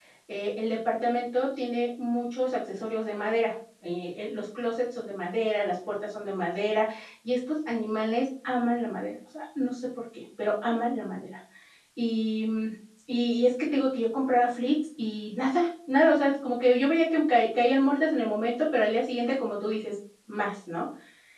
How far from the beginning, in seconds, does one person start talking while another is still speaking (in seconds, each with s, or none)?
none